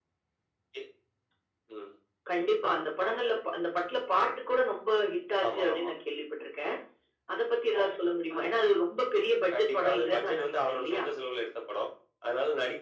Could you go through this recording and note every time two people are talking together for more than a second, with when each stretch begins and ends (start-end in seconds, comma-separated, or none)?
9.5-11.0